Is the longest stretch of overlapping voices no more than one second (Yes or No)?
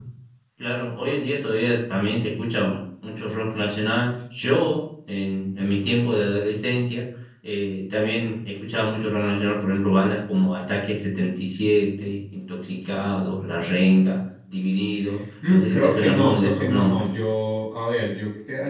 No